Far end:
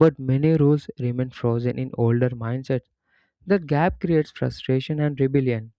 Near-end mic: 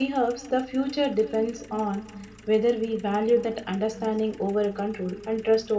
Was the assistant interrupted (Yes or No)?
Yes